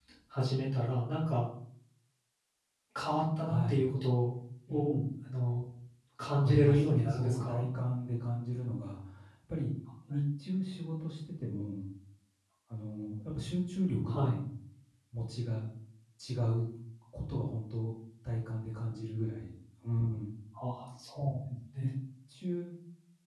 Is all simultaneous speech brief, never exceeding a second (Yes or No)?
No